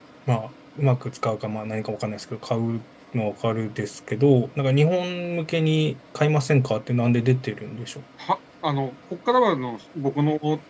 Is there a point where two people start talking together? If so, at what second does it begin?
none

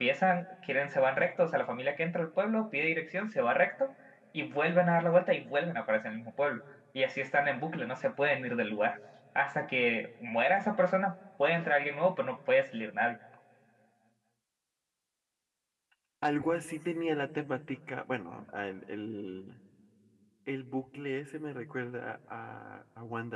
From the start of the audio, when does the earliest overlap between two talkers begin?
none

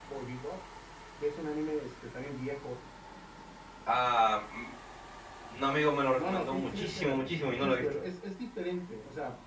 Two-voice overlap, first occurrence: 6.2 s

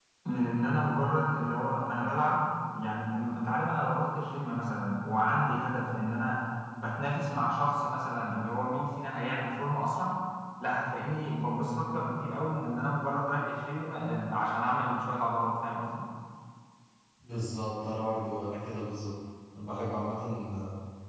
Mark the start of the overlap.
none

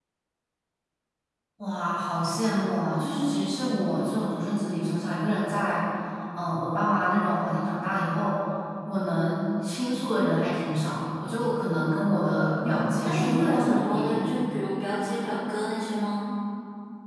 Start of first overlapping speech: 12.6 s

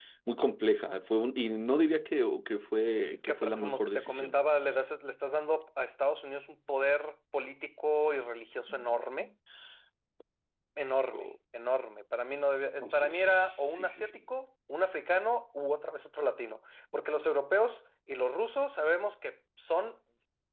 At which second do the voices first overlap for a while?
3.1 s

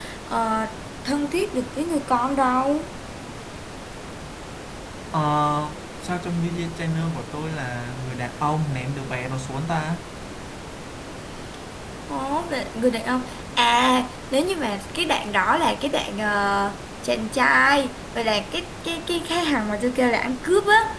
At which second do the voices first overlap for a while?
none

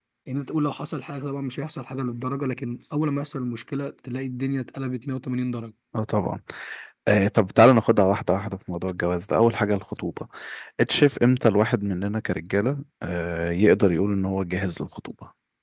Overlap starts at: none

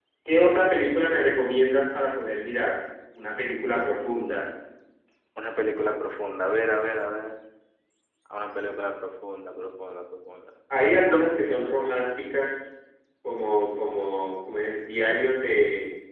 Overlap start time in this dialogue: none

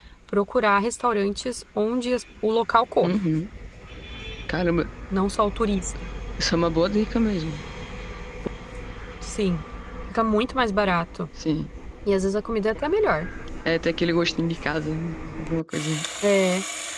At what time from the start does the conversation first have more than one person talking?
none

